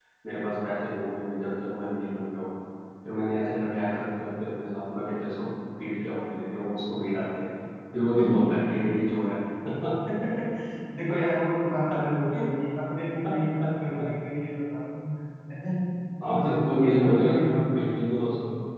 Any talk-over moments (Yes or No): Yes